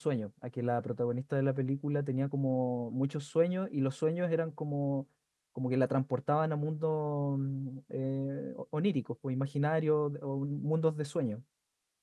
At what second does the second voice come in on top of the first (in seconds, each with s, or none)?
none